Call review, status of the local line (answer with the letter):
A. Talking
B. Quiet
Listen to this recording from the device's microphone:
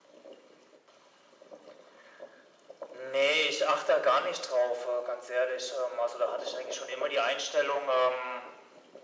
B